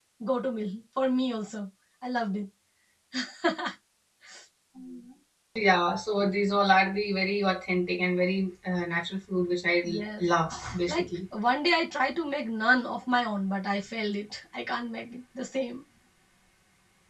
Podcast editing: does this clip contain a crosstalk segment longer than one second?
No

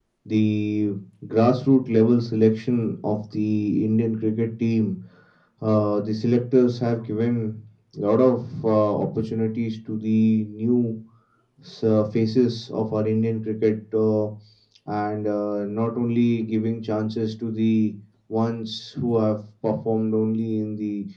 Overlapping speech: No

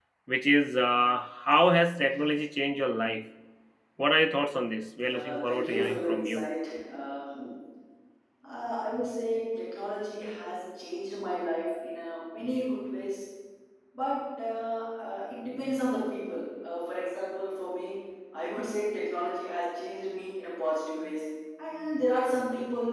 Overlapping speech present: Yes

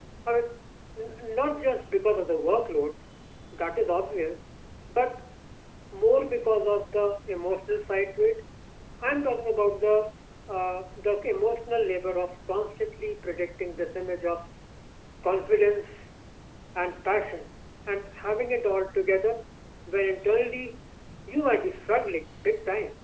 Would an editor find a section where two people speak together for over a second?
No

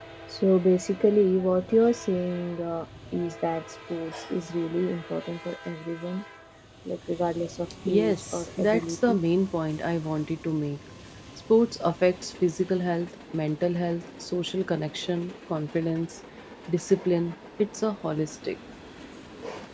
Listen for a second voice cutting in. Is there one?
Yes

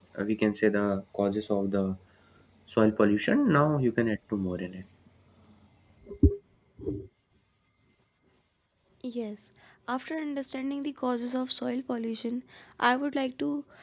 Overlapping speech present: No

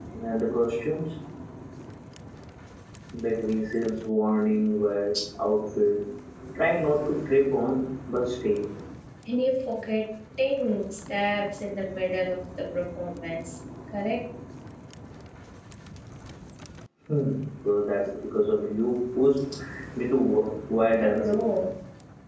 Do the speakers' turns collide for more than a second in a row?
No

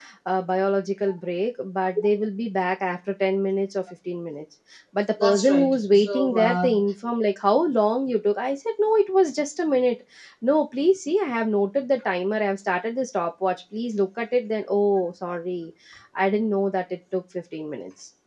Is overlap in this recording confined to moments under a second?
No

